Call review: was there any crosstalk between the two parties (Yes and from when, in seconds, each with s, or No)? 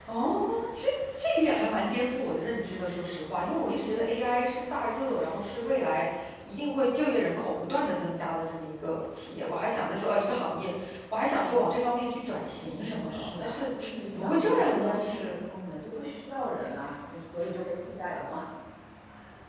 Yes, from 12.4 s